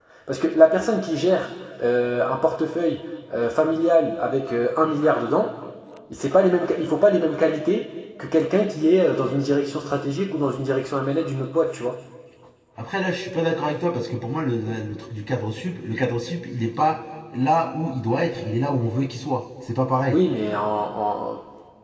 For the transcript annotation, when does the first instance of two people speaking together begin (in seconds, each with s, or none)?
none